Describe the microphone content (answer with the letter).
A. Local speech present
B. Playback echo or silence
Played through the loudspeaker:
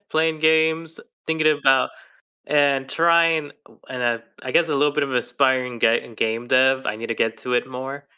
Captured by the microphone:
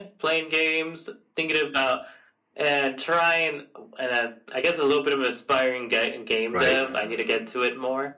A